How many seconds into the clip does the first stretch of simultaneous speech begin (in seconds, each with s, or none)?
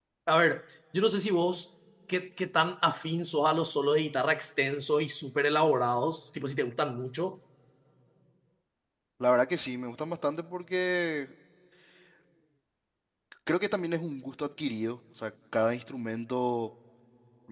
none